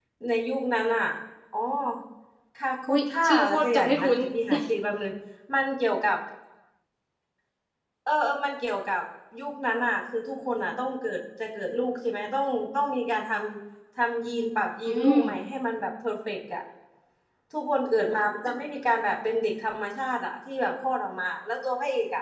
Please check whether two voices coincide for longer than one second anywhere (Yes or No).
Yes